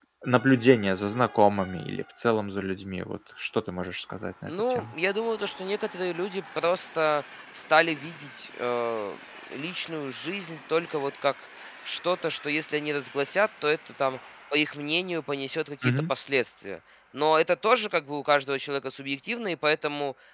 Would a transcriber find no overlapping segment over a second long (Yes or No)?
Yes